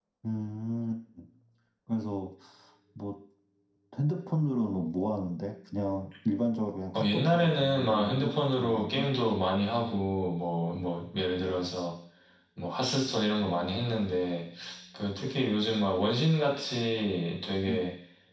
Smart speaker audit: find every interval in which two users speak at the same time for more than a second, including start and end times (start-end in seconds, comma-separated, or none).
6.9-9.1